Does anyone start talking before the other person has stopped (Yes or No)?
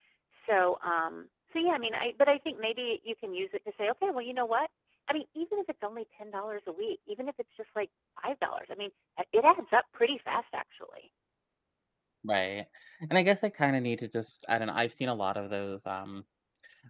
No